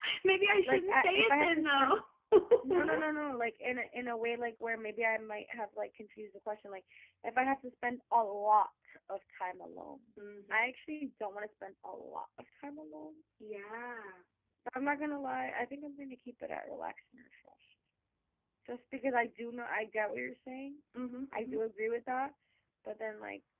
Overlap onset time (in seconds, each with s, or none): 0.6 s